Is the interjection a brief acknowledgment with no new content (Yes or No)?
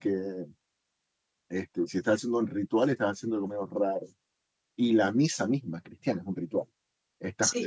Yes